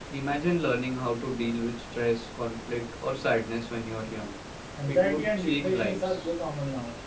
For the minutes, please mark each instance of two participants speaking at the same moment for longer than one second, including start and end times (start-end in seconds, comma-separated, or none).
4.8-6.2